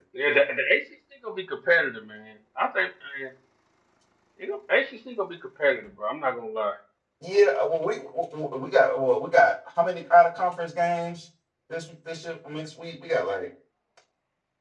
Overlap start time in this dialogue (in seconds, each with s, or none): none